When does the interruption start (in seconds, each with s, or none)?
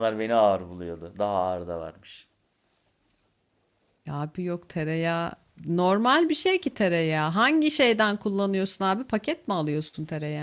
none